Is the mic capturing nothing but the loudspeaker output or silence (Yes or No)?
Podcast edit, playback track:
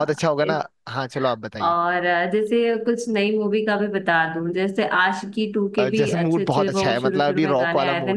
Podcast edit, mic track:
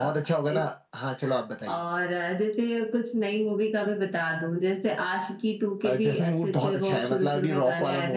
Yes